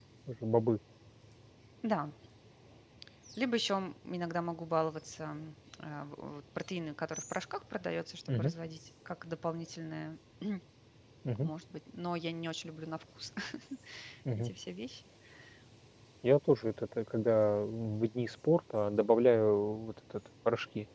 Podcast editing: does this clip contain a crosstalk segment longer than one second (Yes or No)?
No